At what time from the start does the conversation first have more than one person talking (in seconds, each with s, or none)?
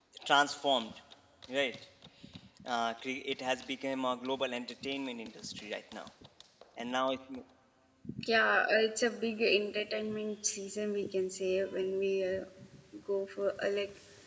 none